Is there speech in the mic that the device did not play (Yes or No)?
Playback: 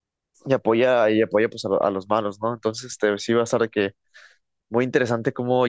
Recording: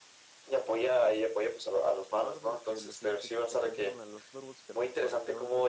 Yes